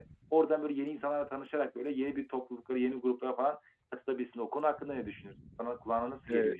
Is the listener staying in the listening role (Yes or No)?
No